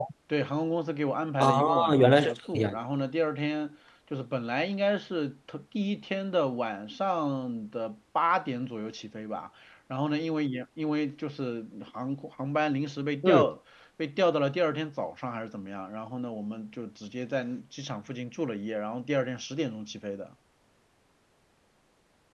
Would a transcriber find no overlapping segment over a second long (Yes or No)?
No